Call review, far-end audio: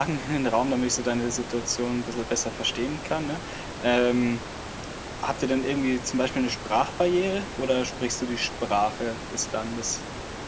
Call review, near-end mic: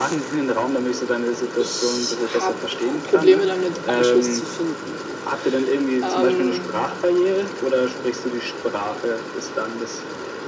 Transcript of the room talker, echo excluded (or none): ich habe Probleme damit, Anschluss zu finden. Ähm